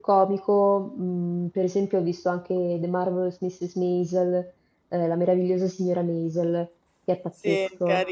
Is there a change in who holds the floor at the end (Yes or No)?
Yes